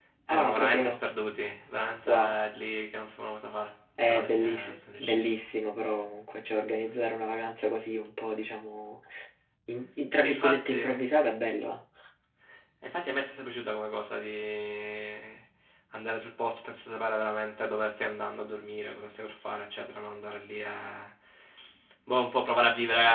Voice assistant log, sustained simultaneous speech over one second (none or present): present